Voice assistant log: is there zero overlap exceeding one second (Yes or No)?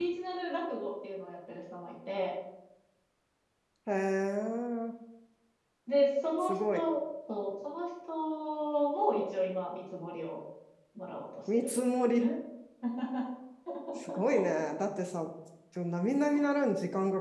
Yes